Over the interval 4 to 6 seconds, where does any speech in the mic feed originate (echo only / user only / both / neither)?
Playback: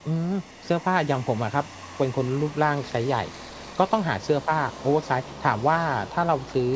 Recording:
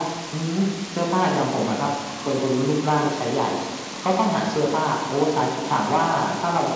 echo only